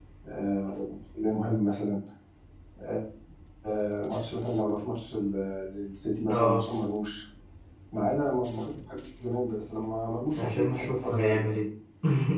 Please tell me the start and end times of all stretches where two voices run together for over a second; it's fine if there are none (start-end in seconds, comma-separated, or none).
10.4-11.6